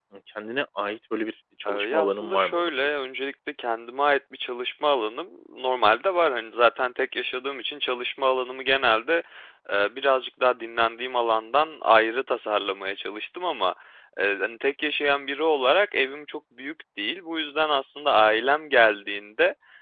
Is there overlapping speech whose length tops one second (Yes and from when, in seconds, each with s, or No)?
Yes, from 1.6 s